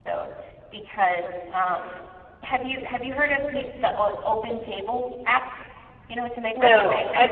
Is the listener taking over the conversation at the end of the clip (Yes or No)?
Yes